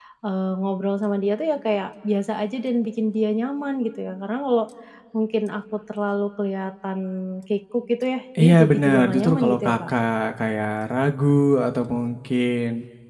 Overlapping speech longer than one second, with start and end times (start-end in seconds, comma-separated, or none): 8.4-9.9